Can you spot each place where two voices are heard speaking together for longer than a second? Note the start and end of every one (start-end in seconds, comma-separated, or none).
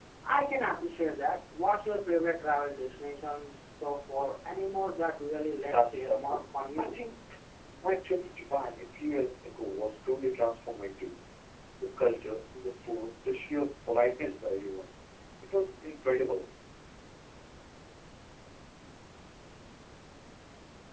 5.6-7.0